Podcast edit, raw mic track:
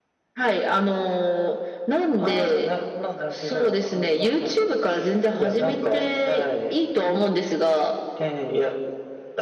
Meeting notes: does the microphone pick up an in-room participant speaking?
No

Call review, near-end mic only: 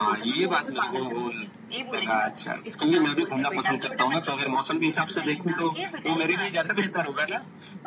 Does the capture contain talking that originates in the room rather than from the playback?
No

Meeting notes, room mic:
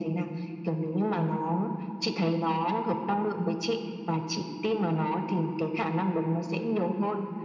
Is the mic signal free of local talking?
Yes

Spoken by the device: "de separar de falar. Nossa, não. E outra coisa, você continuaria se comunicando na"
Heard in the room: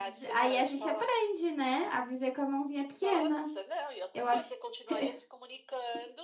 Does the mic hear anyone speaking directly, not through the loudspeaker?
Yes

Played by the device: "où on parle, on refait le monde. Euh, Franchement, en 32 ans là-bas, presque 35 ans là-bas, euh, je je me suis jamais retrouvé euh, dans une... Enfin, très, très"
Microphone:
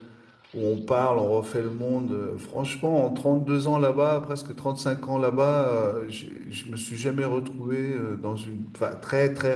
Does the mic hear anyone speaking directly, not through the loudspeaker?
No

